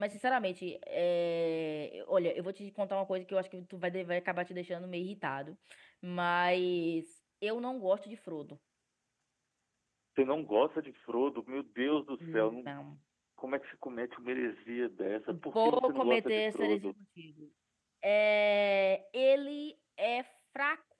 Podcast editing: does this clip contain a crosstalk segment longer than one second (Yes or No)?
Yes